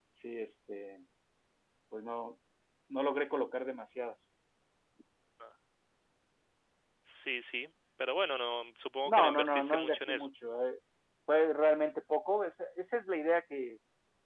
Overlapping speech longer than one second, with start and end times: 9.1-10.3

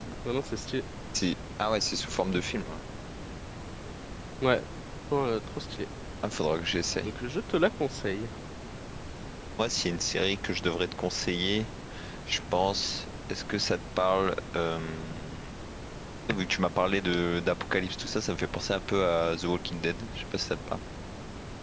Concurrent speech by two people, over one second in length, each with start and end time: none

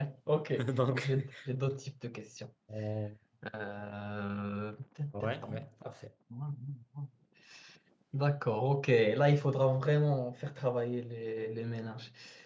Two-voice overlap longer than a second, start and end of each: none

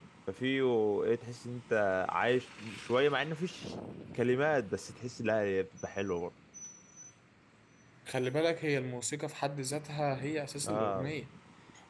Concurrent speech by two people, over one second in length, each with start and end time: none

